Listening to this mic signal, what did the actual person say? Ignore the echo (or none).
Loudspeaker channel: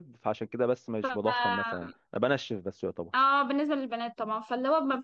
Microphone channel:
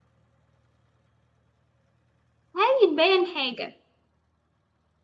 هيتبين حاجة